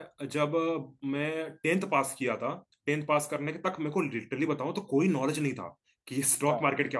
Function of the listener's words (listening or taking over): listening